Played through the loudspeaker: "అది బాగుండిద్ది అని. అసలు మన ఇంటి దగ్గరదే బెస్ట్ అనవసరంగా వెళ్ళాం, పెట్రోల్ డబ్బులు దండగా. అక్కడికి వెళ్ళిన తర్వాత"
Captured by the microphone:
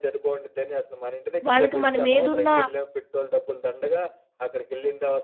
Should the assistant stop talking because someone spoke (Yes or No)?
Yes